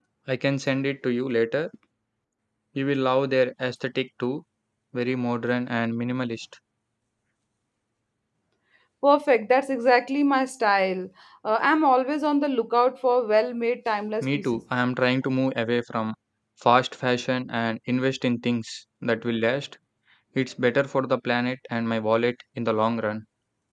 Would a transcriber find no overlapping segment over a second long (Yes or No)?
Yes